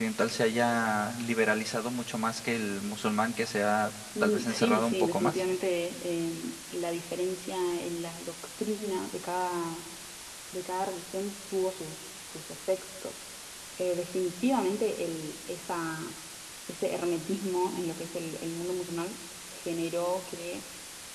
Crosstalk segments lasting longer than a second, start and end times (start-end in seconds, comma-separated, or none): 4.2-5.4